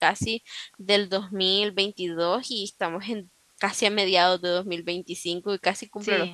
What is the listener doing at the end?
taking over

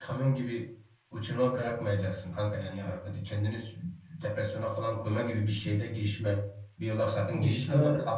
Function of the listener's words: listening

